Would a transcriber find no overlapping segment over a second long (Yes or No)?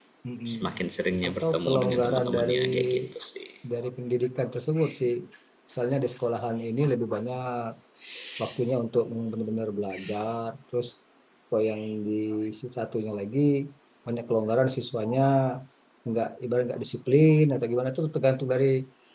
No